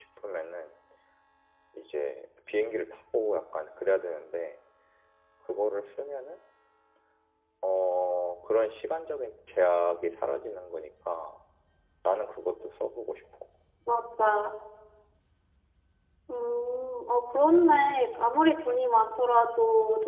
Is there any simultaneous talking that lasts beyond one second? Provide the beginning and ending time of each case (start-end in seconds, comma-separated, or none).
none